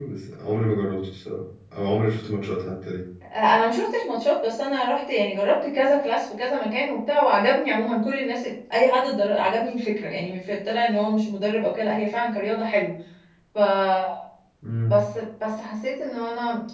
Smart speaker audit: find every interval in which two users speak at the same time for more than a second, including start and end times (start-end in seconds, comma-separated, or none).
none